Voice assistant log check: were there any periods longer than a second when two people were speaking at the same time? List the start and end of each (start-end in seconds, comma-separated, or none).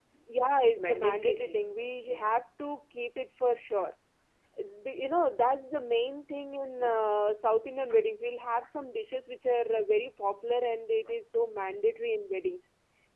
0.8-2.4